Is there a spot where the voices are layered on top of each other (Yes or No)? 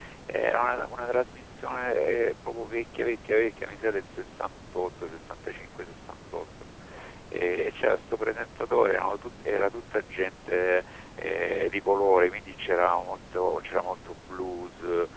No